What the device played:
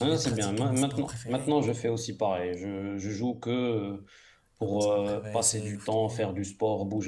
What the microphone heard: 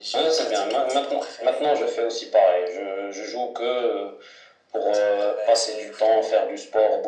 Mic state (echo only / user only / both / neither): echo only